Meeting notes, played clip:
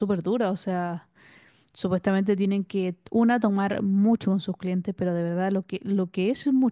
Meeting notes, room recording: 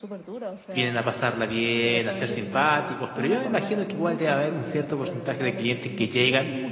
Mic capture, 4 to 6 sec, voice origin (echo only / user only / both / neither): both